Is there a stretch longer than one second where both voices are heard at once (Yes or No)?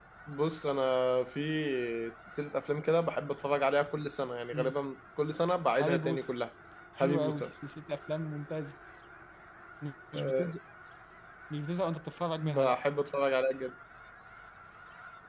No